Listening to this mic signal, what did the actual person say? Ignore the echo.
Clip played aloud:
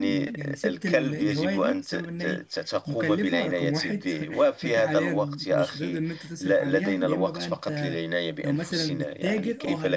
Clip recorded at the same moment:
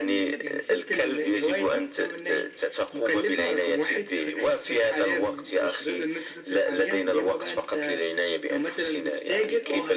none

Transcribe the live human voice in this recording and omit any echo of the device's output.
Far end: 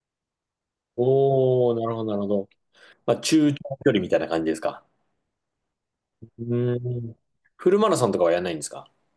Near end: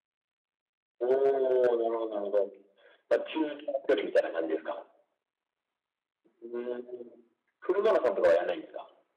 none

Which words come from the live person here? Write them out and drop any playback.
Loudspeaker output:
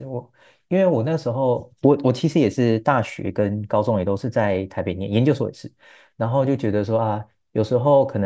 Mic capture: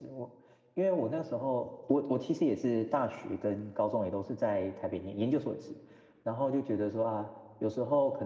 none

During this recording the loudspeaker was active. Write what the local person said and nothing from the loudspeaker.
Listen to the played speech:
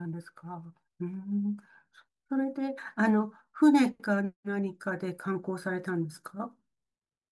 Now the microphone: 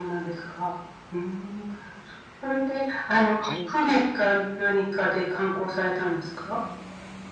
貝塚とか

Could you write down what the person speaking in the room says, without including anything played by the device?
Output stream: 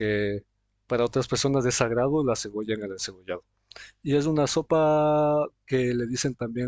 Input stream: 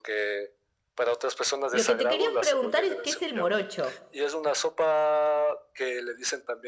Lo que te quería preguntar es qué es el morocho.

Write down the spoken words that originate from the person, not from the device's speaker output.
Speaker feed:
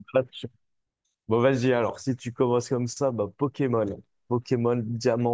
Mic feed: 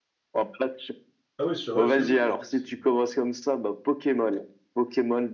Ah oui, sur Rust, oui, oui, le but c'est.

